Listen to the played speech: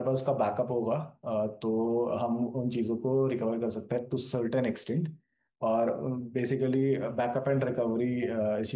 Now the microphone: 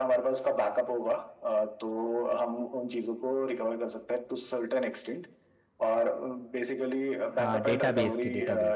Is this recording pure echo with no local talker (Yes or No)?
No